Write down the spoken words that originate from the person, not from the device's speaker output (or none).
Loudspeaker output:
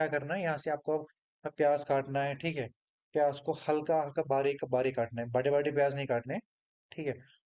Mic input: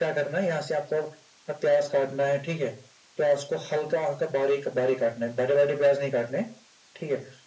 none